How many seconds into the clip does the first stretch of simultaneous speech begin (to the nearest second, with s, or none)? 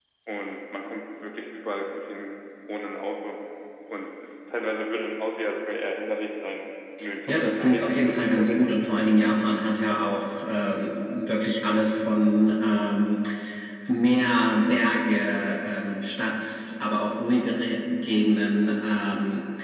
7 s